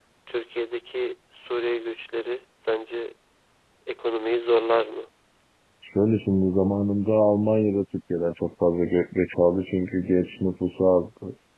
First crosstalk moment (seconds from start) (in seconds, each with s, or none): none